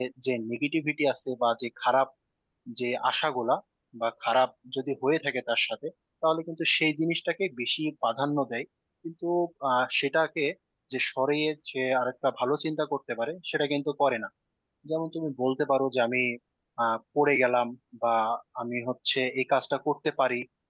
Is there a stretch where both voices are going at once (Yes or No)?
No